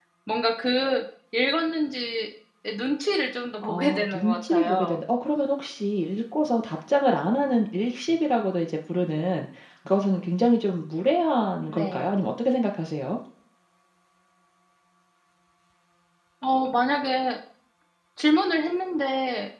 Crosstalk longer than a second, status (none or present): present